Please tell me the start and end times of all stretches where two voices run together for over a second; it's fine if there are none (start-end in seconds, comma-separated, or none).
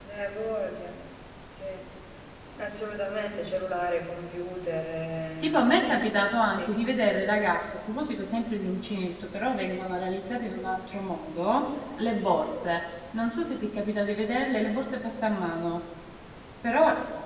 none